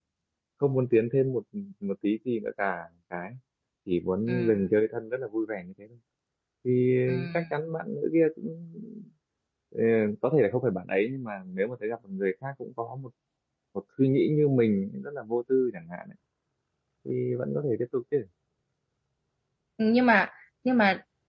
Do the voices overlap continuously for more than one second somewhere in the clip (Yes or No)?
No